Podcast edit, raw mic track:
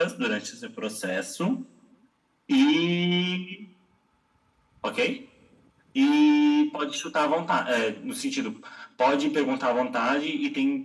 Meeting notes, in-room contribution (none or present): none